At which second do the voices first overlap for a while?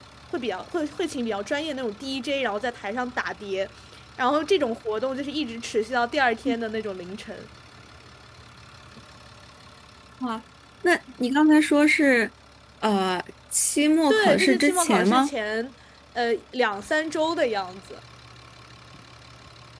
14 s

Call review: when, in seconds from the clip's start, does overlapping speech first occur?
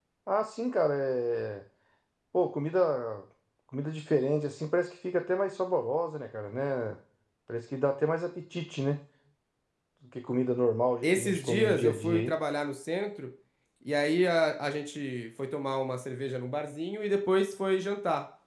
11 s

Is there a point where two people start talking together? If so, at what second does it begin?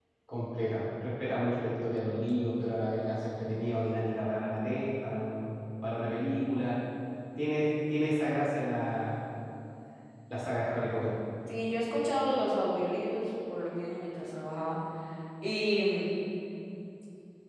none

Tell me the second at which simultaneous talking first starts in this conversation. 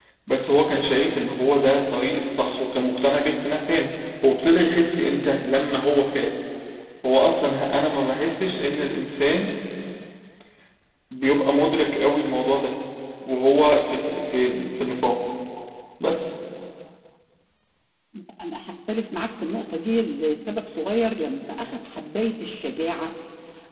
none

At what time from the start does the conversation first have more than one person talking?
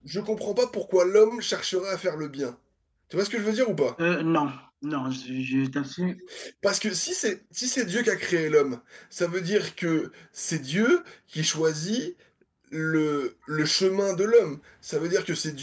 none

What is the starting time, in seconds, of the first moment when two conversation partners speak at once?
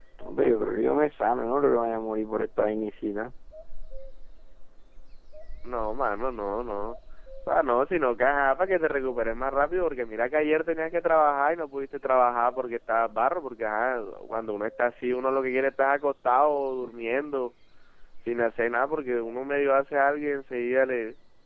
none

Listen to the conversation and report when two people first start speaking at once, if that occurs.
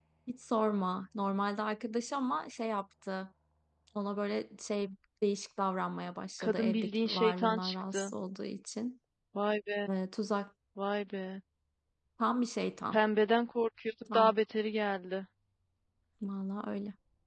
6 s

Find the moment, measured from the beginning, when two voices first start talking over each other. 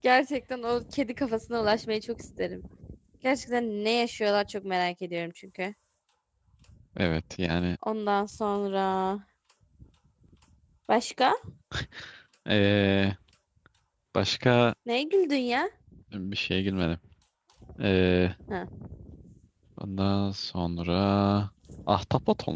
none

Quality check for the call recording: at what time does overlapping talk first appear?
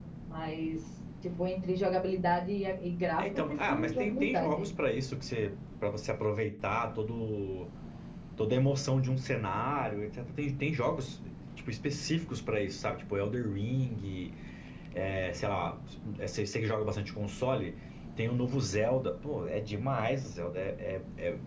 3 s

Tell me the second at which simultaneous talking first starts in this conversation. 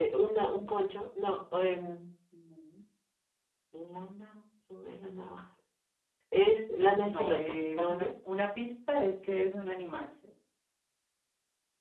7 s

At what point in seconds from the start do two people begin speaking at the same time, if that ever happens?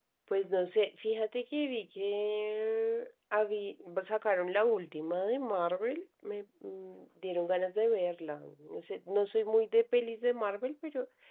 none

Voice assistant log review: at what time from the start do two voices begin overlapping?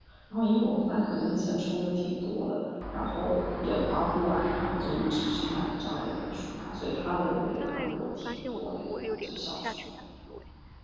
8 s

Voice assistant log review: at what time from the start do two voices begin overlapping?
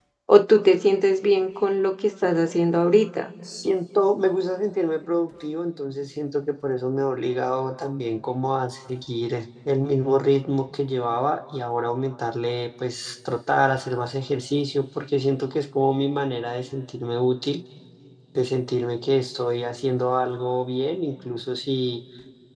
none

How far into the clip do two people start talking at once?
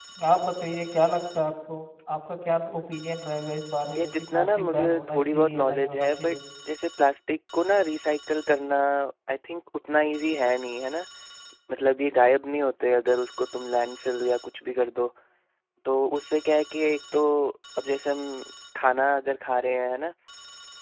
4 s

